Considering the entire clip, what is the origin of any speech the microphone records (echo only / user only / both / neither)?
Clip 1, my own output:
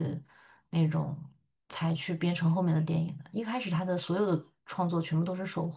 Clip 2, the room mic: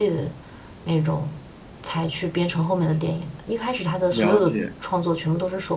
both